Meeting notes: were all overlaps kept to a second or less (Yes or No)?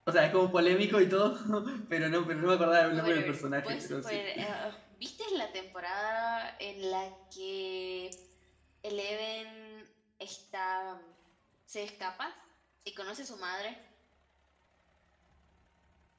No